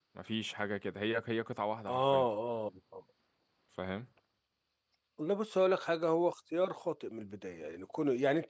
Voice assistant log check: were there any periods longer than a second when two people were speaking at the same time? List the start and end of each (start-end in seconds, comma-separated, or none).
none